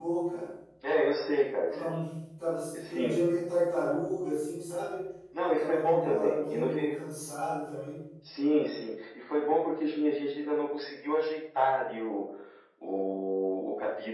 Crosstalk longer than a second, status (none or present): present